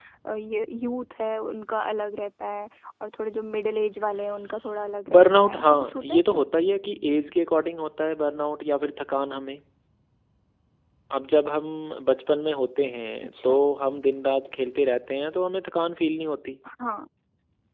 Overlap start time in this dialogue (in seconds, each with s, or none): 5.1 s